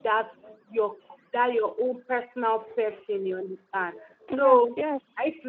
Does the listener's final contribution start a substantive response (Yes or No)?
No